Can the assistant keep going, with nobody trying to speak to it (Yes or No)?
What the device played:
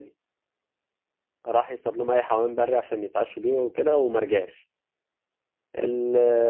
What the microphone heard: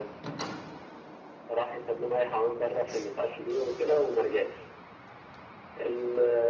Yes